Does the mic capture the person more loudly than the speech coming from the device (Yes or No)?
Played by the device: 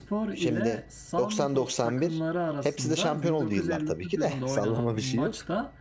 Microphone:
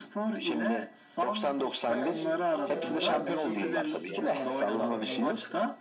No